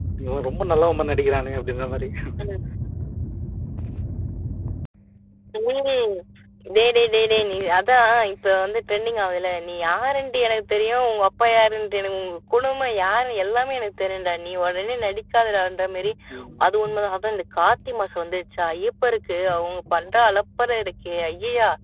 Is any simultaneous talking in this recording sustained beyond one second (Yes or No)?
No